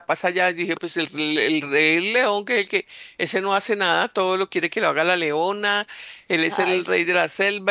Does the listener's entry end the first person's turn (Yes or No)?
No